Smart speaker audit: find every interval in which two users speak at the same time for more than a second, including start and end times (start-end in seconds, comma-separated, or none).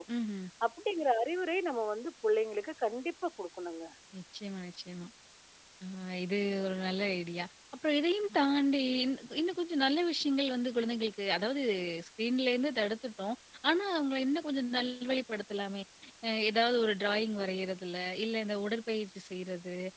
none